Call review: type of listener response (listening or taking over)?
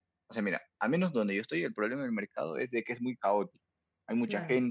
listening